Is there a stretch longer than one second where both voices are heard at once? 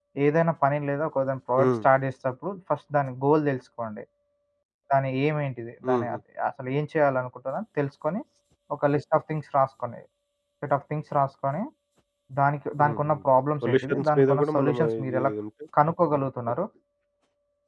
Yes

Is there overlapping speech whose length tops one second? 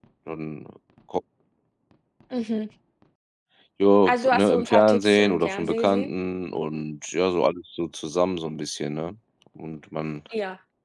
Yes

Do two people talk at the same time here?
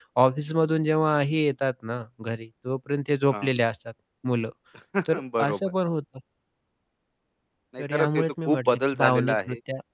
Yes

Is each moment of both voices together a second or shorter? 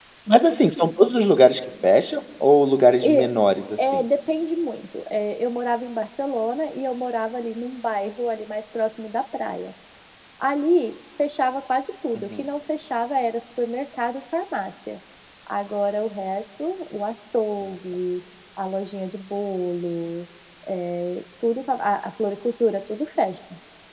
Yes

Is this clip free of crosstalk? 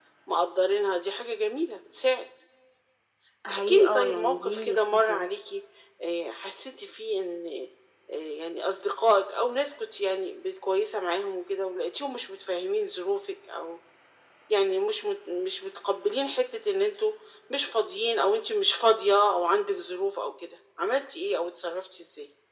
No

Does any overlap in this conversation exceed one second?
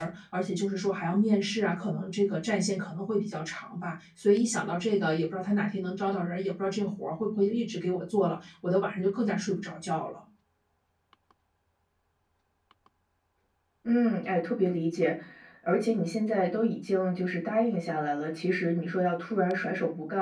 No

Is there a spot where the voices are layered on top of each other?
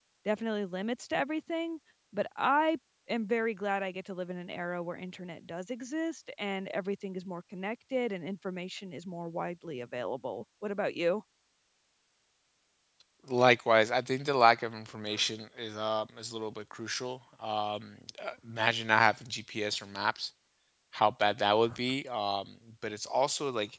No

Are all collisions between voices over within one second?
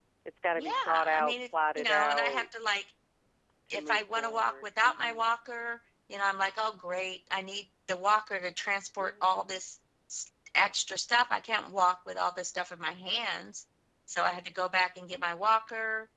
No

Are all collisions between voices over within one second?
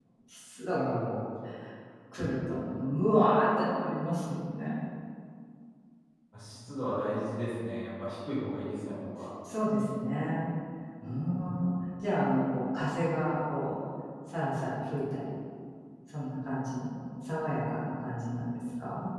Yes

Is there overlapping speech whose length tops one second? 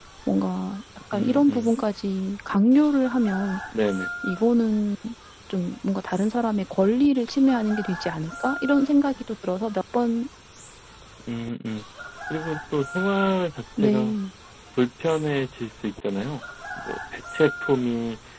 No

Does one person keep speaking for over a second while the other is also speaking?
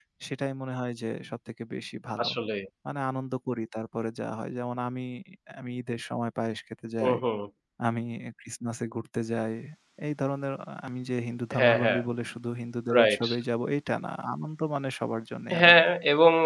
No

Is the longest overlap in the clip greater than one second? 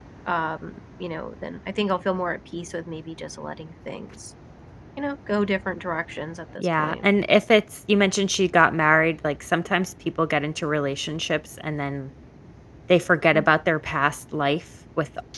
No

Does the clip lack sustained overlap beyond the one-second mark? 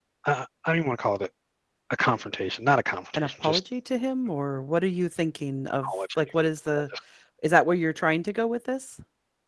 Yes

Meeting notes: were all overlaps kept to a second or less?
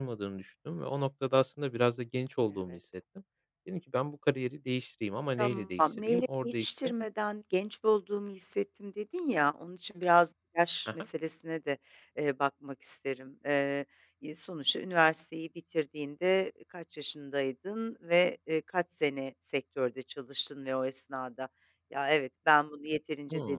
No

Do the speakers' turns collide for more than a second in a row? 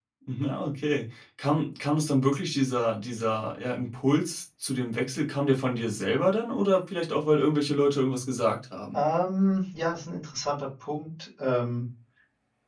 No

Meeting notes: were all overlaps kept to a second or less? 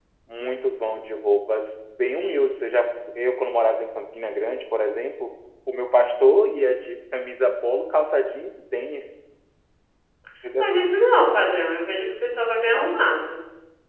Yes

